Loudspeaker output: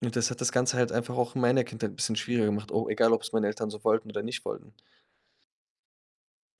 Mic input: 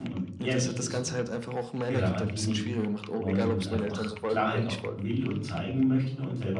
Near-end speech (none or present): present